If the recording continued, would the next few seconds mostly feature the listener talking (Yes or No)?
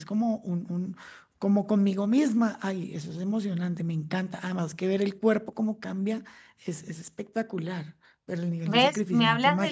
Yes